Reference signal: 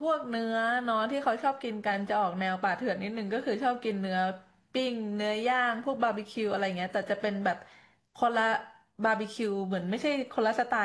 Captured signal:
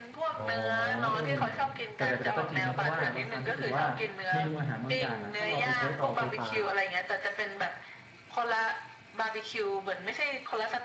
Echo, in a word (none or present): present